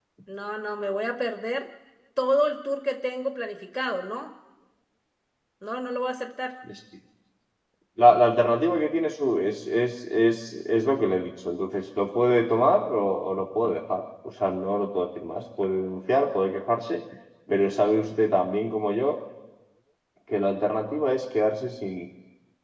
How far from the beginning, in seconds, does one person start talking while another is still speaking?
none

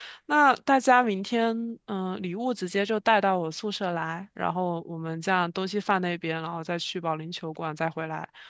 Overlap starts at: none

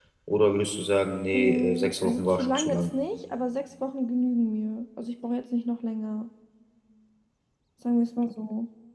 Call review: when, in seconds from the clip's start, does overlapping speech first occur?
1 s

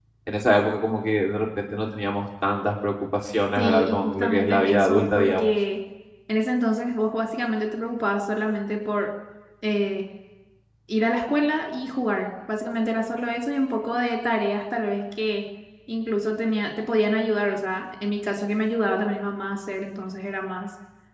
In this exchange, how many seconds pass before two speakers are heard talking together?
4 s

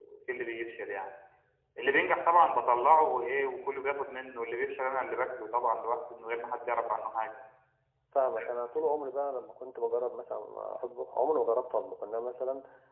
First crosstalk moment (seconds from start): none

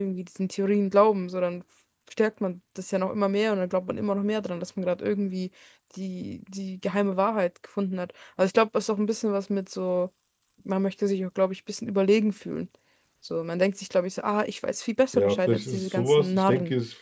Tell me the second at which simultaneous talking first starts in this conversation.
15 s

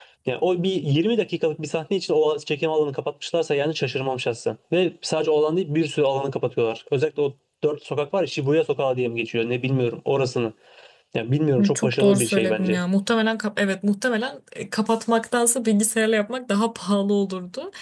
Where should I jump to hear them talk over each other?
12 s

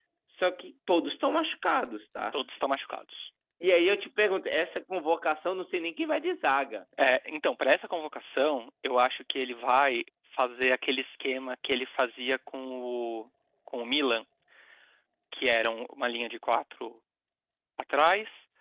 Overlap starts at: none

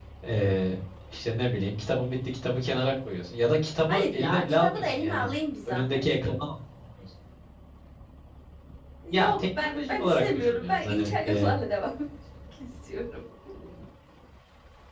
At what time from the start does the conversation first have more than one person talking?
4 s

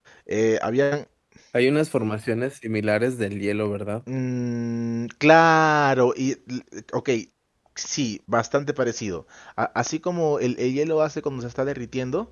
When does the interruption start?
none

